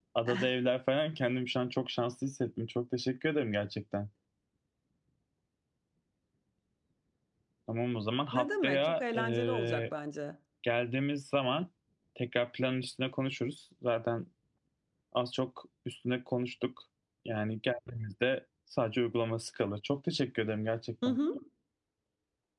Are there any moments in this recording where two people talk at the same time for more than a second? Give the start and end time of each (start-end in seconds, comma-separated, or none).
8.3-9.8